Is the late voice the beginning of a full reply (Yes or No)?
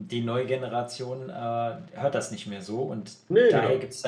No